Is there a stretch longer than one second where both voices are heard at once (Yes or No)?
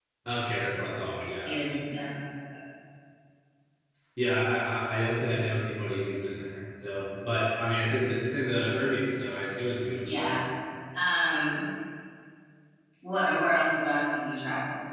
No